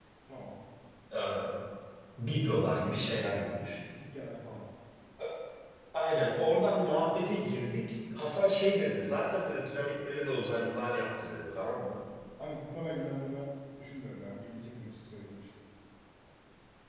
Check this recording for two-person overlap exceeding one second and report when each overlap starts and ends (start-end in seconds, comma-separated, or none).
none